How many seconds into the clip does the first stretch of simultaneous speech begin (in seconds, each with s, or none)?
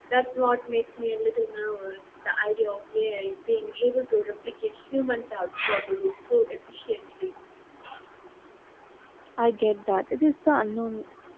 none